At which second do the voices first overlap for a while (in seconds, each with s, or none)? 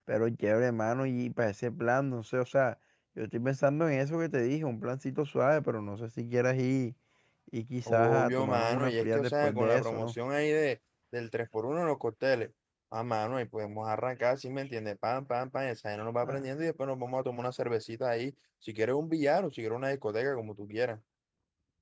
7.9 s